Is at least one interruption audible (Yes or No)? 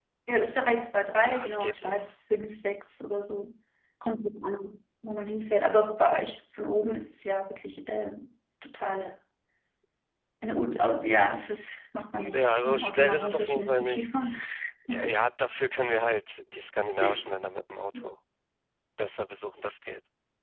Yes